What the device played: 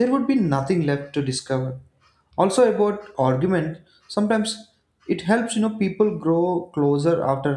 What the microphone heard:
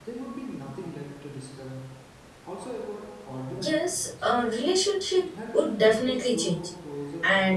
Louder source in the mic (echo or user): user